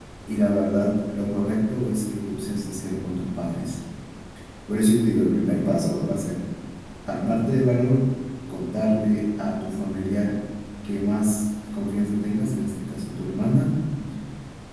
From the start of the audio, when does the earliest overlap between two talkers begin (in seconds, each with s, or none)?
none